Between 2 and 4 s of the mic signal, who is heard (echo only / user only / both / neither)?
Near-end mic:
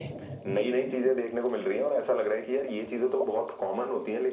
echo only